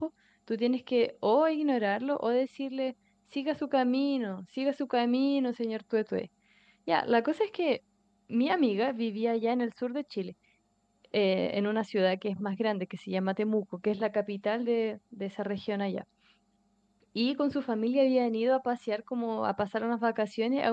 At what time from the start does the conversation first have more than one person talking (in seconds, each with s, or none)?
none